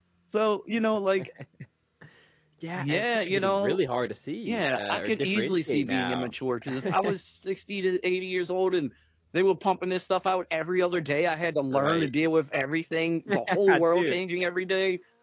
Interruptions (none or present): present